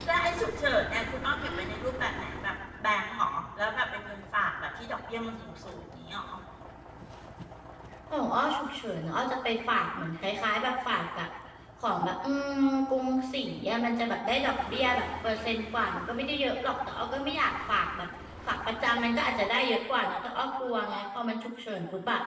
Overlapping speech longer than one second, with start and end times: none

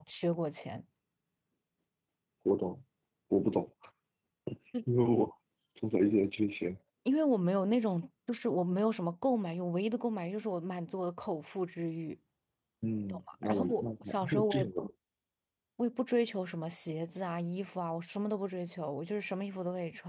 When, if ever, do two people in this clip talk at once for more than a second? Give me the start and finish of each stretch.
13.1-14.9

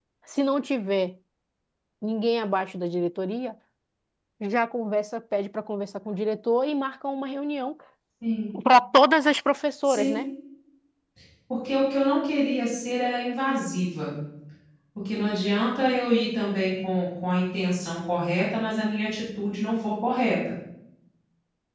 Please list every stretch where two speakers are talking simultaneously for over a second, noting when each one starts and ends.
none

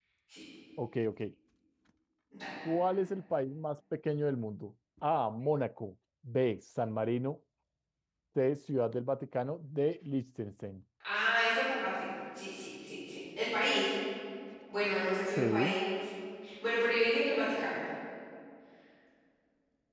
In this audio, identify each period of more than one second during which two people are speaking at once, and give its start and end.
none

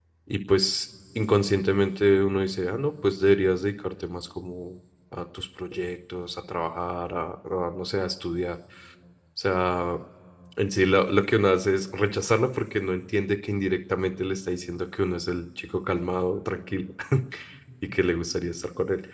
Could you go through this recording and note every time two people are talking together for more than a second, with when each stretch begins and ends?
none

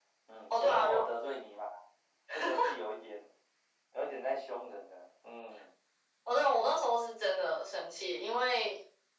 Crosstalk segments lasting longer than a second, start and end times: none

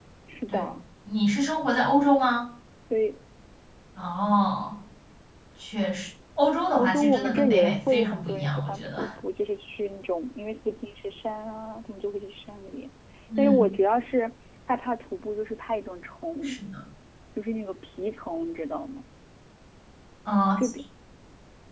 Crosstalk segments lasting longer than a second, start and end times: 6.6-9.1

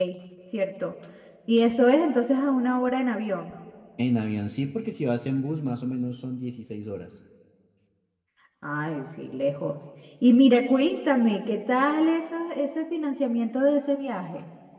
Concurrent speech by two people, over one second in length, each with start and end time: none

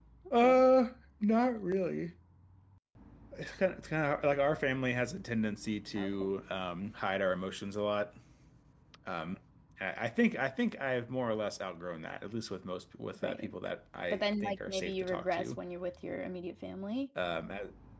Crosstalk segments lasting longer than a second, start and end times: 14.1-15.6

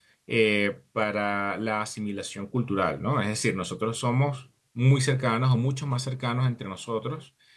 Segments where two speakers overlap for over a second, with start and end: none

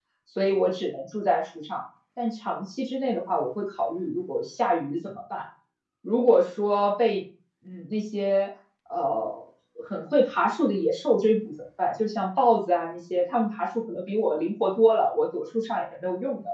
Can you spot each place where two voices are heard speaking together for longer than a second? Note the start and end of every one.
none

